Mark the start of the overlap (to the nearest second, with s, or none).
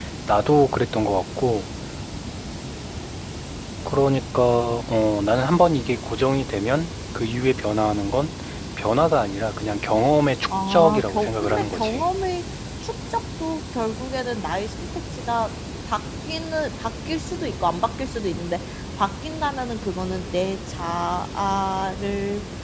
10 s